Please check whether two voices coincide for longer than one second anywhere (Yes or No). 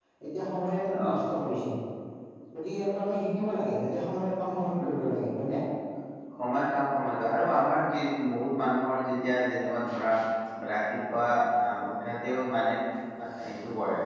No